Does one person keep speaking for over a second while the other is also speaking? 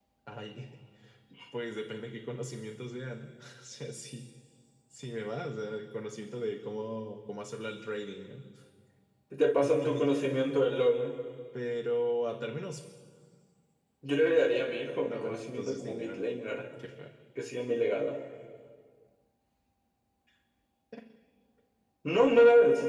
Yes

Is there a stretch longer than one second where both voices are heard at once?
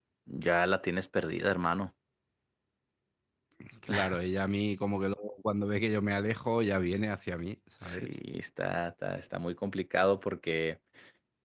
No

